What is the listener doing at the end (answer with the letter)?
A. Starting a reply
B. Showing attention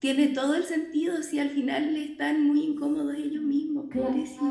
A